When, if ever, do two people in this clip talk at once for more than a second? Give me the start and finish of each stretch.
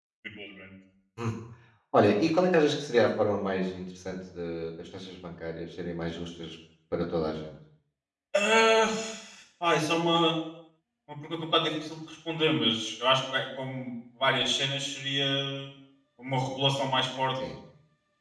none

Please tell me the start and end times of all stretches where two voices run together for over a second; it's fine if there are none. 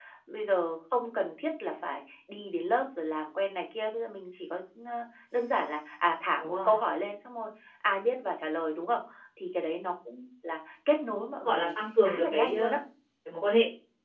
11.2-12.8

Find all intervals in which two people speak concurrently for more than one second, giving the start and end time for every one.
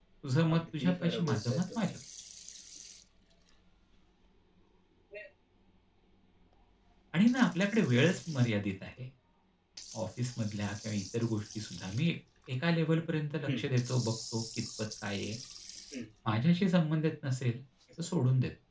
0.5-1.9

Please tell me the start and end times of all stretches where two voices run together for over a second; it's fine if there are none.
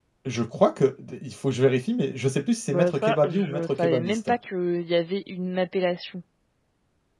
2.7-4.2

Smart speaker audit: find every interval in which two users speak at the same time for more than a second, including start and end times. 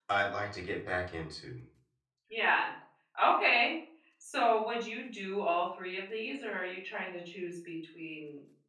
none

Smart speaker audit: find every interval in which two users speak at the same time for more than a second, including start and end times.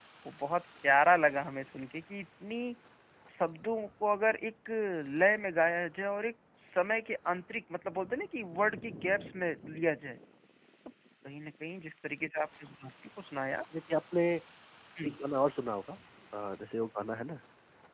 none

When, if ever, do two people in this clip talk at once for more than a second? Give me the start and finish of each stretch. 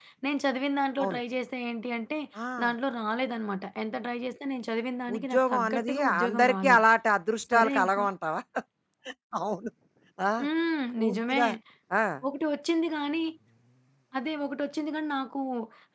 5.1-6.8

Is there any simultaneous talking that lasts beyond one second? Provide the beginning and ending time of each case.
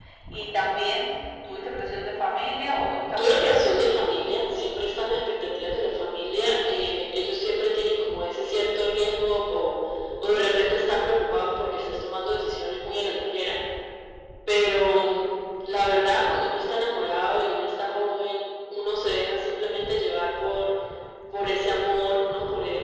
none

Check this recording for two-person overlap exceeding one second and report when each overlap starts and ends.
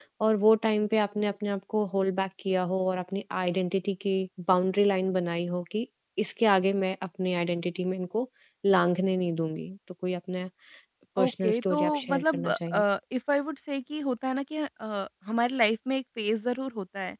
11.2-12.8

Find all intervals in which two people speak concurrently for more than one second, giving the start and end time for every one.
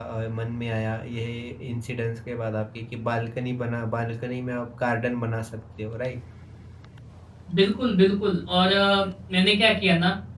none

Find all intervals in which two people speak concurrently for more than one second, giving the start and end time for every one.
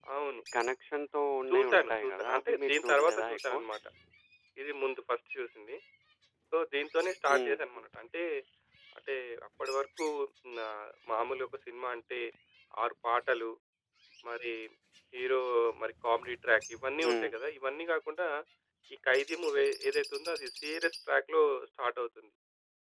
1.5-3.6

